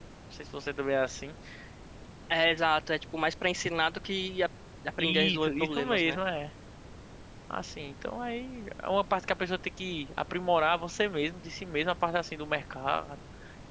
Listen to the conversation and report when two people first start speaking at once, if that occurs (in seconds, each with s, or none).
5.0 s